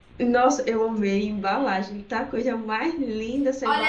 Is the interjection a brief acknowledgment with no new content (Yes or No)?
No